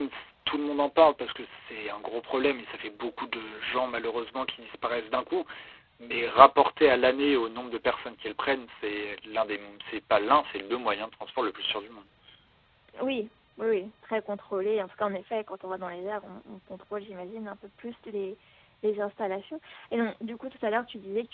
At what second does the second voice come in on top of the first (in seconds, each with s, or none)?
none